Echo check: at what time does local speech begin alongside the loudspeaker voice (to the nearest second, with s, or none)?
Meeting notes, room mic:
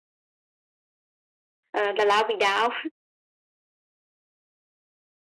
2 s